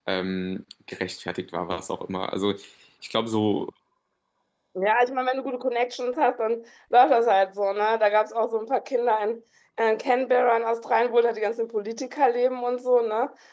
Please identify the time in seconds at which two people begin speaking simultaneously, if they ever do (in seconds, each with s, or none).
none